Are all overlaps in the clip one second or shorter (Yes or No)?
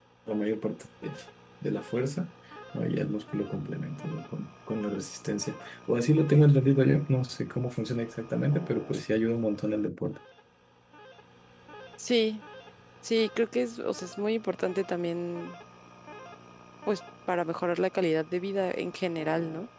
Yes